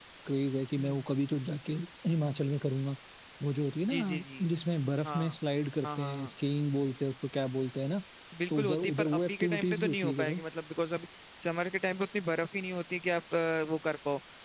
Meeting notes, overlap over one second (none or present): present